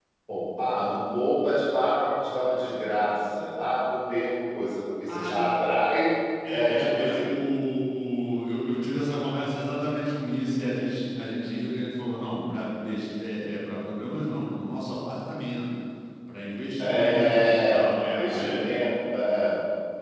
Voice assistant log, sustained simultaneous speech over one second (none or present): present